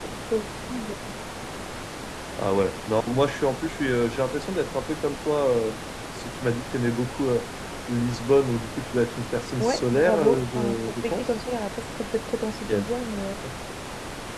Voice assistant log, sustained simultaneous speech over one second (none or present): present